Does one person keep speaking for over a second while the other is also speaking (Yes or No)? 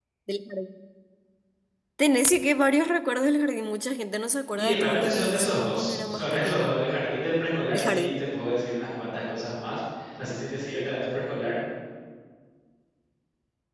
Yes